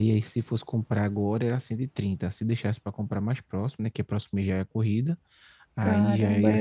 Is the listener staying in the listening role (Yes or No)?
No